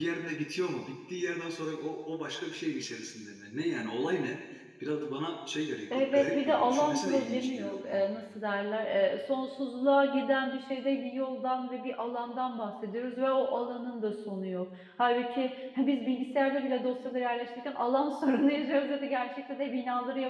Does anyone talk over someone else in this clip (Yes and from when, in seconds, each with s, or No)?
Yes, from 5.9 s